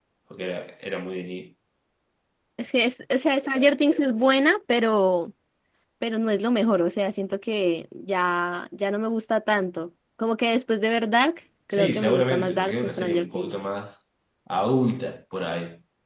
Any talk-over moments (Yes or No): Yes